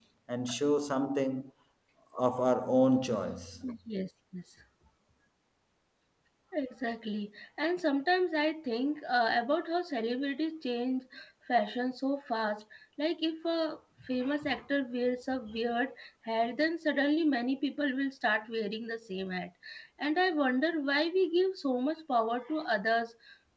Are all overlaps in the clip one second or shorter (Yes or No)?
Yes